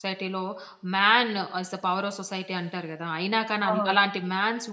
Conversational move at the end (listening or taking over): listening